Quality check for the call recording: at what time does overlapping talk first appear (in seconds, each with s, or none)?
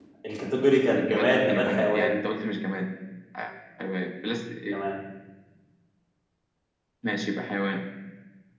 0.8 s